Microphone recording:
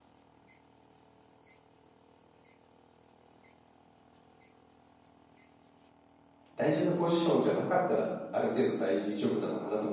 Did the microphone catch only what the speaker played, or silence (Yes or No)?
No